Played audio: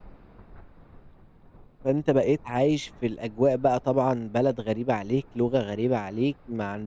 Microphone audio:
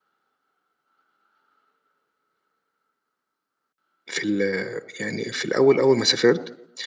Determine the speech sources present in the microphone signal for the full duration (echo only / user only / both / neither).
user only